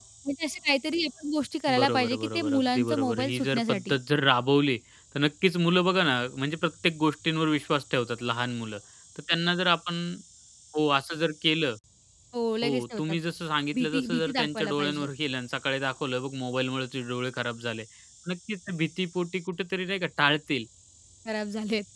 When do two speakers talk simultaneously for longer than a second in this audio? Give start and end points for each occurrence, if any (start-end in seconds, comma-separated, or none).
1.8-4.0, 13.7-15.1